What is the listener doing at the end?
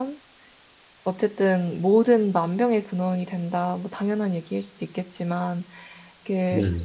listening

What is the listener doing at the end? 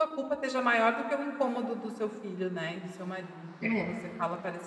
listening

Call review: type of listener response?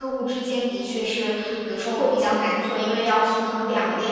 listening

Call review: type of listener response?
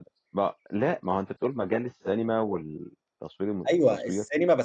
taking over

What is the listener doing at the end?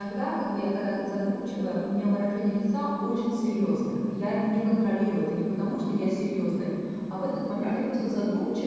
listening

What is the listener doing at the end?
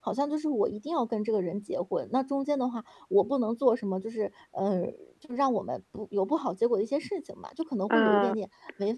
listening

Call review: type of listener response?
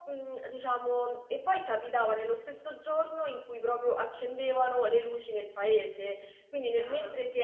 listening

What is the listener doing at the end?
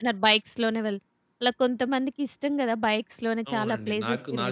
taking over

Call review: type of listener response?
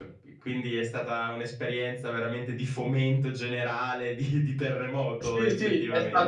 taking over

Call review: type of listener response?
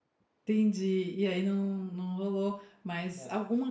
listening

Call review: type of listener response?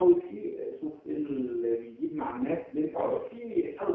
listening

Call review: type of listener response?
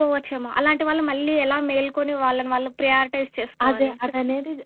taking over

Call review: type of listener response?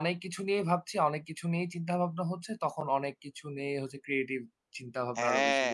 taking over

